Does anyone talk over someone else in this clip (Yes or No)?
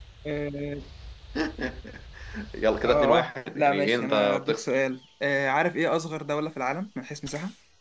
Yes